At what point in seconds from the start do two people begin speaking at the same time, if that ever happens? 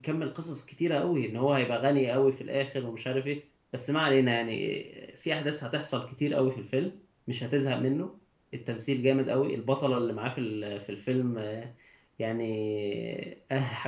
none

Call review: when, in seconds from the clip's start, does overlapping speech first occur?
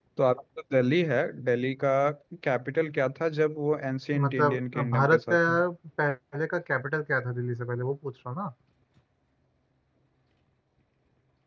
4.1 s

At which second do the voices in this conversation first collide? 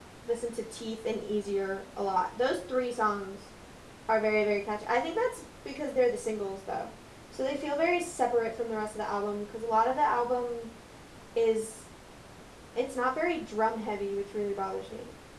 none

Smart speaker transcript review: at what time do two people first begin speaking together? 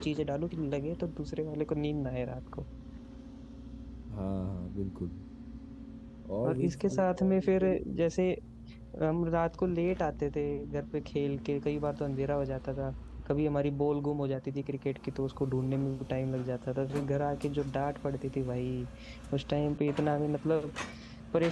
6.5 s

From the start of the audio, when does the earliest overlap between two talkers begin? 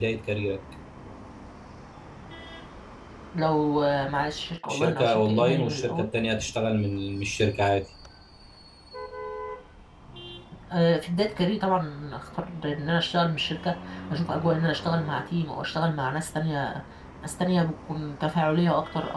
4.7 s

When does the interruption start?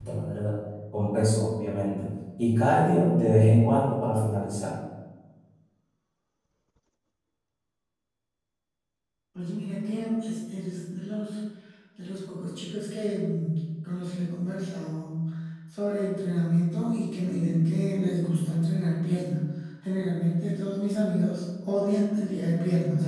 none

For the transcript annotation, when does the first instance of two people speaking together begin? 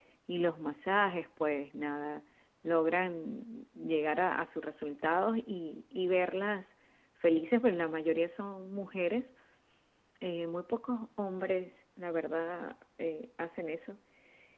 none

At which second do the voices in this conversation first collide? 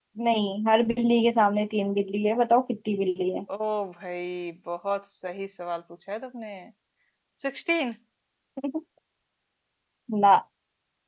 none

